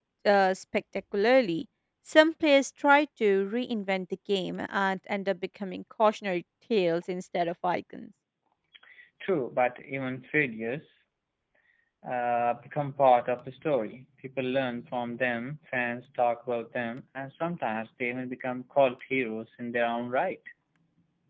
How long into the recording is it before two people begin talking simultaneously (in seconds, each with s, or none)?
none